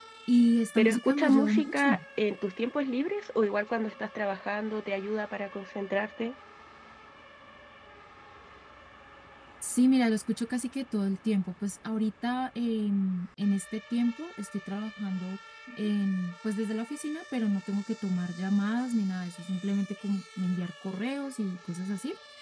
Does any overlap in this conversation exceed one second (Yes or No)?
Yes